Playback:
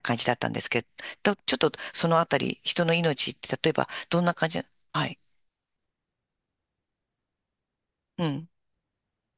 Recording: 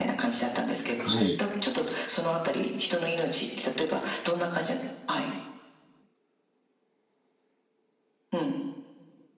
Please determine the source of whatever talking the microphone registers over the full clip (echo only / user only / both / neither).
both